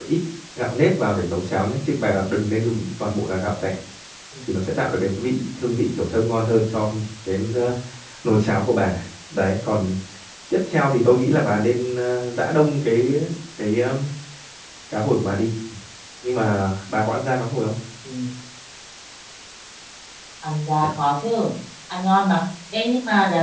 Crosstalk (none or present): none